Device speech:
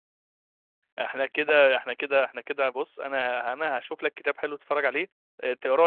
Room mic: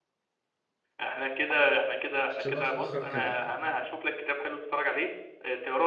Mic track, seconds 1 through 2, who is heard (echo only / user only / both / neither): echo only